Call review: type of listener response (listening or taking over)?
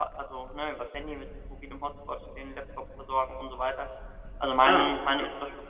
listening